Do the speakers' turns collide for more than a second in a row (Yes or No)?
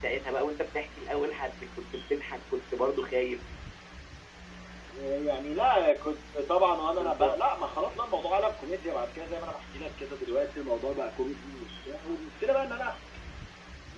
No